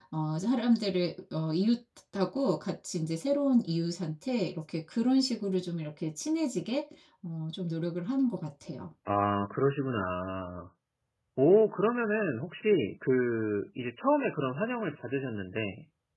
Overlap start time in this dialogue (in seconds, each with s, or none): none